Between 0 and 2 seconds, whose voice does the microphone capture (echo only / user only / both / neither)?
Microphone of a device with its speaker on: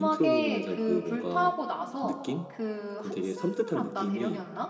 both